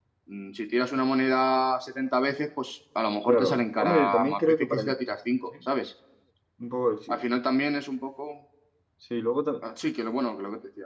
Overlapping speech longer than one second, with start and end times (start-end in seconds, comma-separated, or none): 3.3-4.9